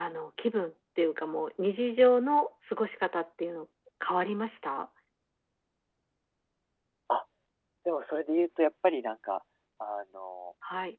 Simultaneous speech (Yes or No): No